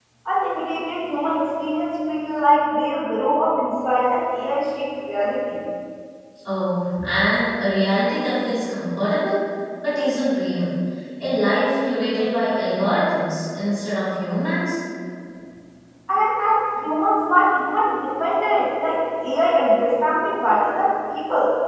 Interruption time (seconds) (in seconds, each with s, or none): none